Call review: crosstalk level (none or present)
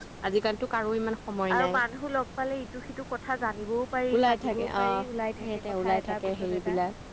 present